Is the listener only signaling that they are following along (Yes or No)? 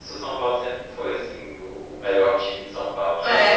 No